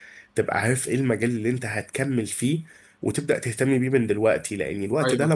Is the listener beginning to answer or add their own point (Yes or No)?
No